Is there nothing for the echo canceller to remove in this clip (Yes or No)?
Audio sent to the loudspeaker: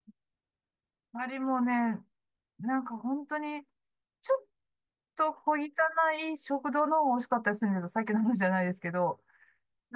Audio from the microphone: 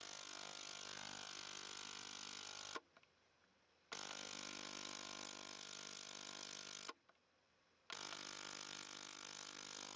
Yes